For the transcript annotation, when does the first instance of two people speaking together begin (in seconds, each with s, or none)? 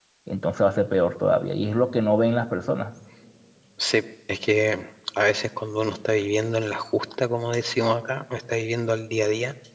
none